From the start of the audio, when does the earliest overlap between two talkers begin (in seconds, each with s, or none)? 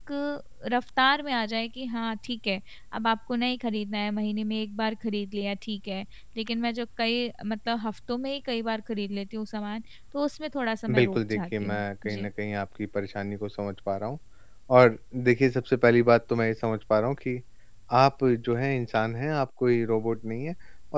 10.9 s